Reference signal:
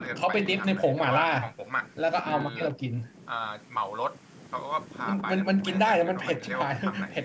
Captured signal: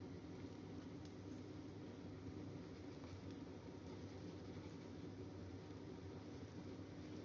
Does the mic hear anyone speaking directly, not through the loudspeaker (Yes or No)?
No